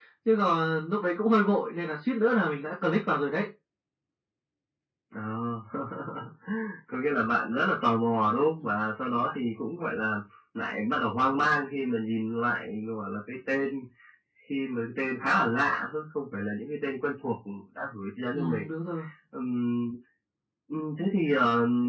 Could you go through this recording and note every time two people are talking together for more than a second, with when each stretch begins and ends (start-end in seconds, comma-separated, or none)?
none